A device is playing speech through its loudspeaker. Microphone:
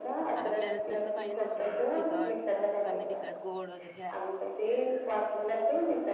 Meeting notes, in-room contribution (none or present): present